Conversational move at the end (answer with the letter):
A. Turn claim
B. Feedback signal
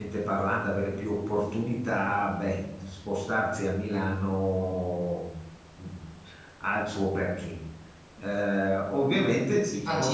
A